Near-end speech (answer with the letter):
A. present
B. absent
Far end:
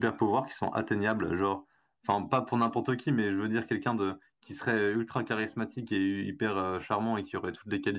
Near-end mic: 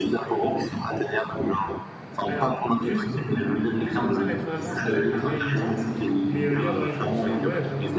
A